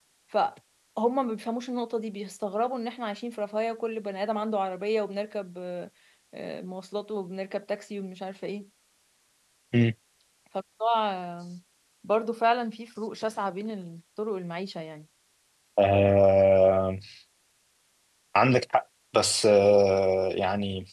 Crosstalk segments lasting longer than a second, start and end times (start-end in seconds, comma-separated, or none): none